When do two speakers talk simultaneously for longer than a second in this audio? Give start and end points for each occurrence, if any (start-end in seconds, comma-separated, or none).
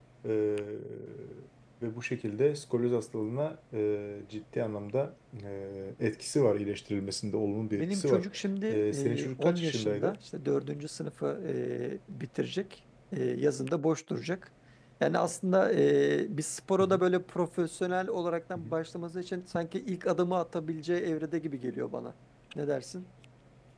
8.7-10.2